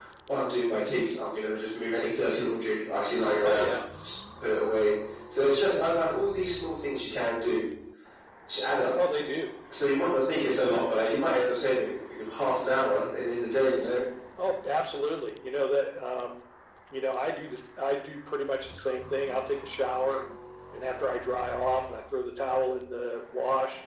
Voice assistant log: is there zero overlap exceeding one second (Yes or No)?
Yes